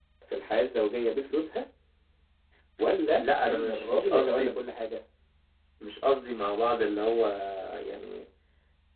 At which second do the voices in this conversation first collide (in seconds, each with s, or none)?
3.2 s